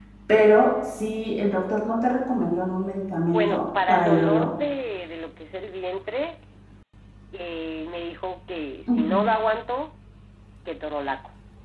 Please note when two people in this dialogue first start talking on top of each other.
3 s

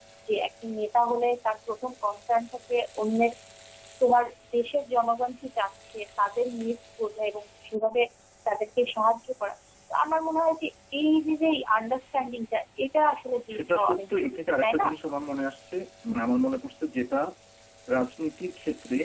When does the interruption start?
13 s

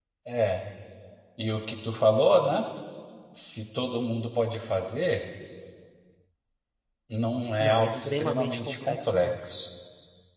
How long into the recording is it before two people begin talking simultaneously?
8 s

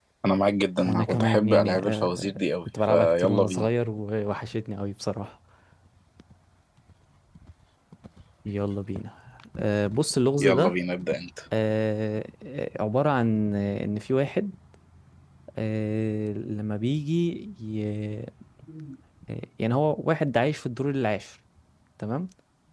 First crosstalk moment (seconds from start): 1 s

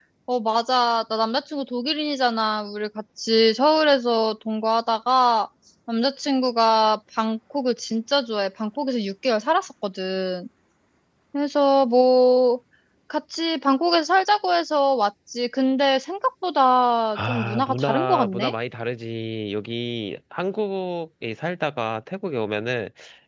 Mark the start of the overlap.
17 s

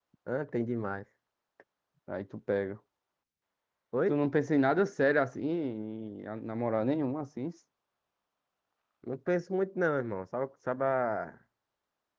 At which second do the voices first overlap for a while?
none

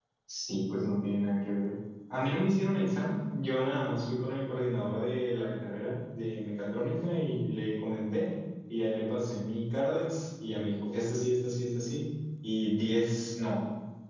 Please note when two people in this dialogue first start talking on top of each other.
none

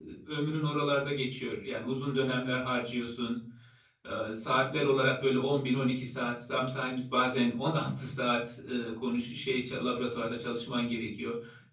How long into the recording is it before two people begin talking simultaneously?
none

